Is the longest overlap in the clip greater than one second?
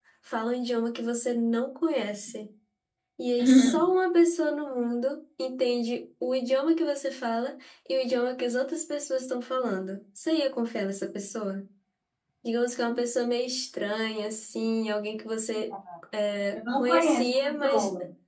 Yes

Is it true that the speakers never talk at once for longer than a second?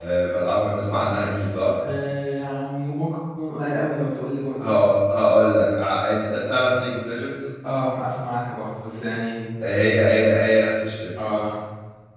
Yes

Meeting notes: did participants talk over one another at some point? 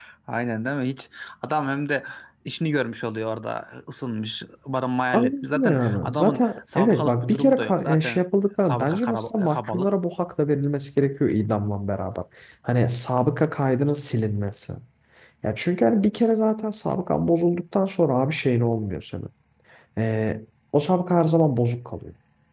Yes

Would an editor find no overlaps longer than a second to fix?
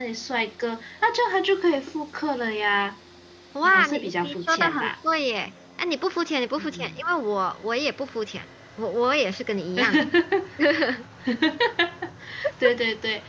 No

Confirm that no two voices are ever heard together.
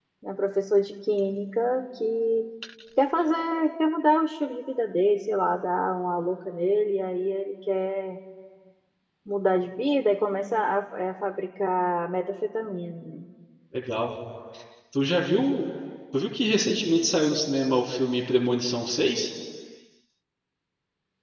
Yes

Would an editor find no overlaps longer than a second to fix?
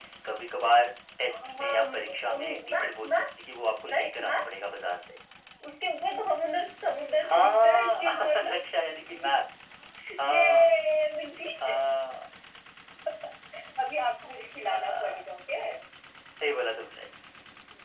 No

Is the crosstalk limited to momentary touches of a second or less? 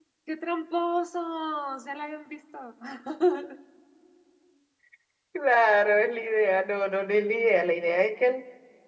Yes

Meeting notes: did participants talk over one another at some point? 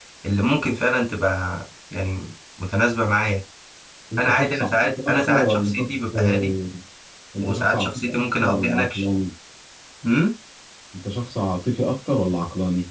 Yes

